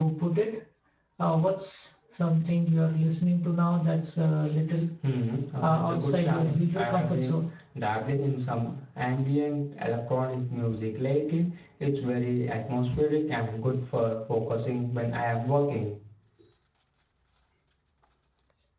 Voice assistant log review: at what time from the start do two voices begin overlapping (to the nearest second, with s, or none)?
6 s